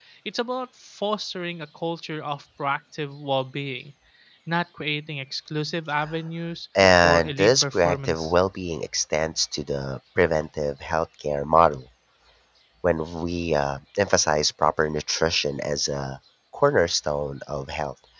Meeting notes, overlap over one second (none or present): present